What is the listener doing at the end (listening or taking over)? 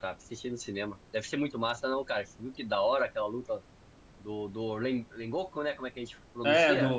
taking over